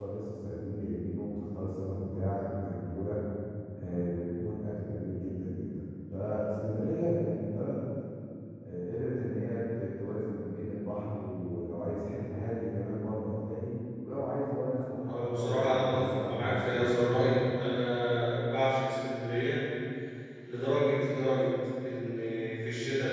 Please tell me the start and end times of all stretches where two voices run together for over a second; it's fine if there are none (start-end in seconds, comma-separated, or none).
15.1-17.1